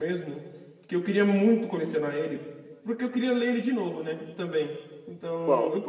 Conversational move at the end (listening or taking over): listening